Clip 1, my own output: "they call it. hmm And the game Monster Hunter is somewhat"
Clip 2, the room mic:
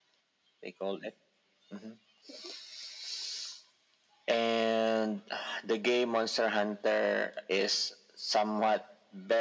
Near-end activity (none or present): none